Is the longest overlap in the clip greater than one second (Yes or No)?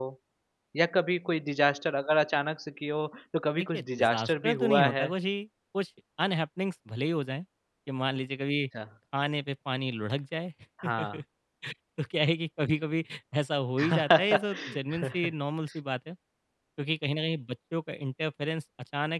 Yes